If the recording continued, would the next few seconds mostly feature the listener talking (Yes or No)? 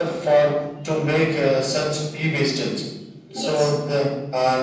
No